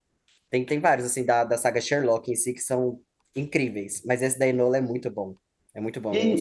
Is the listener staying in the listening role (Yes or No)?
No